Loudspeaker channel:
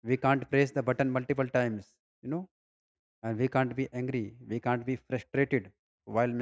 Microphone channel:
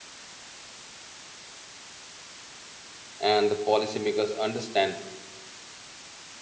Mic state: user only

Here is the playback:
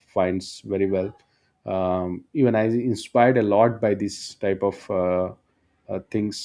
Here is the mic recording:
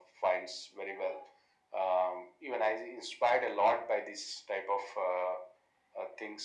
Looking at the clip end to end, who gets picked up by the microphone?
echo only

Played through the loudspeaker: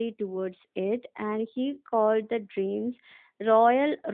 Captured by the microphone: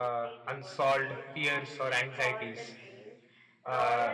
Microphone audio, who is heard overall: both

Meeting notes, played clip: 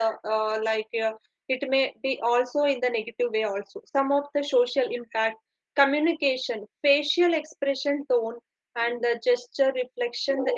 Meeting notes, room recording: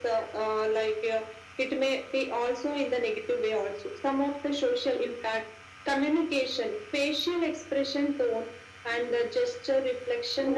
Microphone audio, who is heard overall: echo only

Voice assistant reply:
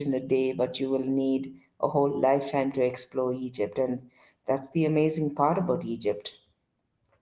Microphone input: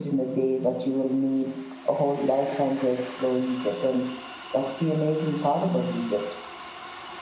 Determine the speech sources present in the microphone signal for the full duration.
echo only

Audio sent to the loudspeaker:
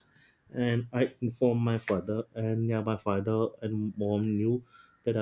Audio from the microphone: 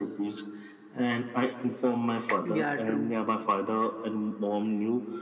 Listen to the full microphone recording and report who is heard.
both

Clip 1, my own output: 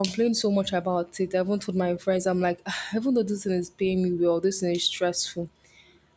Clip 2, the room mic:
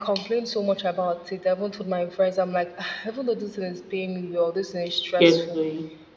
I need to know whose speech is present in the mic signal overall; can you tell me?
both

